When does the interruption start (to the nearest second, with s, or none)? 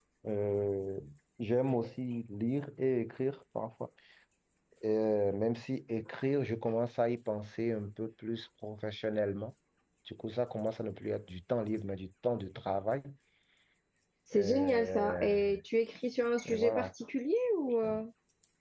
14 s